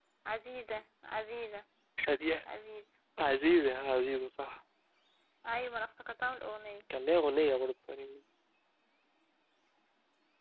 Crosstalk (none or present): none